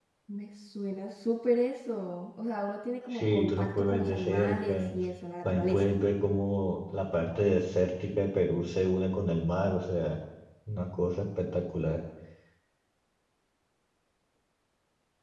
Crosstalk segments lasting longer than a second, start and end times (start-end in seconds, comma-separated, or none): 3.1-4.8